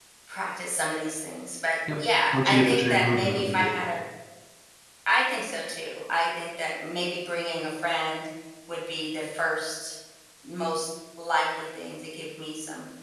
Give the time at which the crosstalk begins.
2.3 s

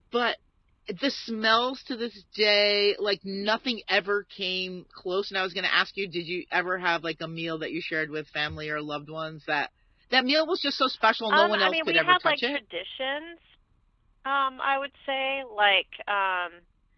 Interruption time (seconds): 11.3 s

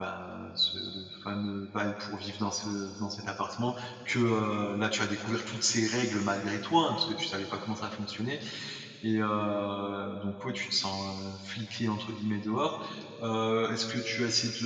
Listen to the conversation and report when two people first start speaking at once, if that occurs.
none

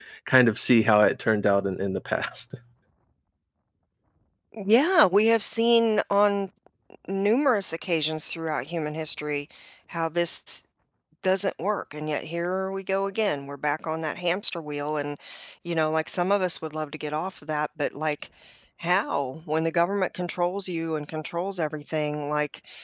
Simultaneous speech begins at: none

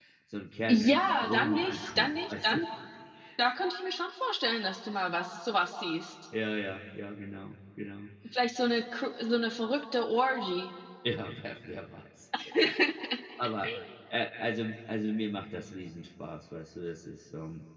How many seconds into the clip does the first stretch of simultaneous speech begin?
0.7 s

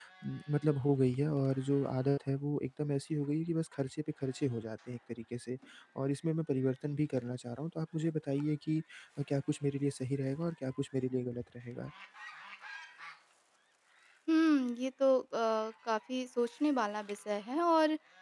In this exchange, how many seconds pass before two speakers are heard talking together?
none

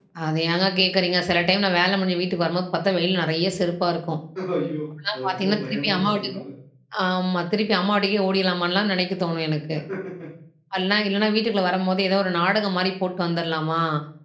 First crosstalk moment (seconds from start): 5.1 s

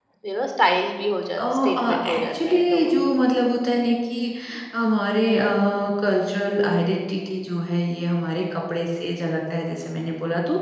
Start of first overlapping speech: 1.3 s

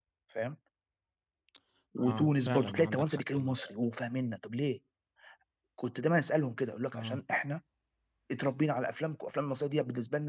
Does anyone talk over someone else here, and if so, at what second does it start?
2.1 s

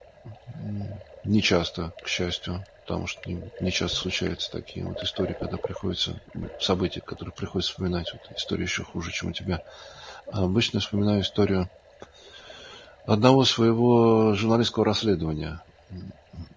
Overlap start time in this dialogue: none

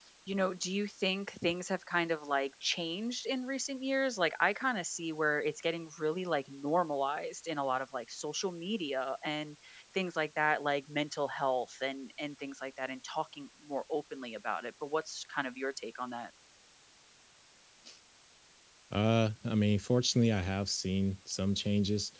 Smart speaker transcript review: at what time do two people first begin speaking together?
none

